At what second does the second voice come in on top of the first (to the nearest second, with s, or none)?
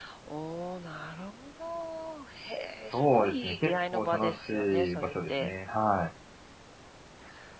3 s